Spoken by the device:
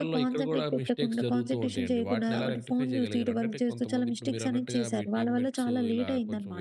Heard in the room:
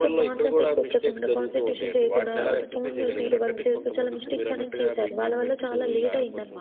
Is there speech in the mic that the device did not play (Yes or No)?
Yes